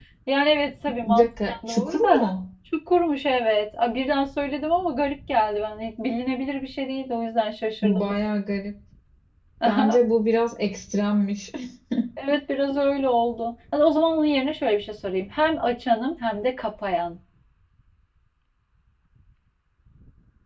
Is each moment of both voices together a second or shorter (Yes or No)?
No